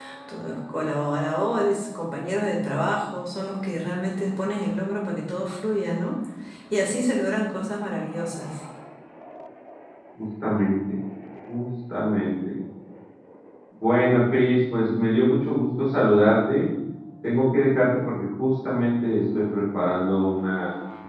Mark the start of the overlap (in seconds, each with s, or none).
none